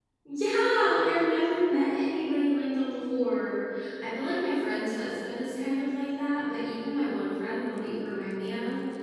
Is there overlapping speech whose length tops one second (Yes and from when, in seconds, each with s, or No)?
No